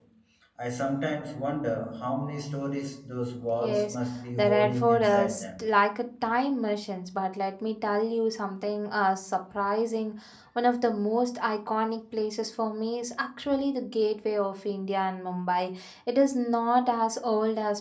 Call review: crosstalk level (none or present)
present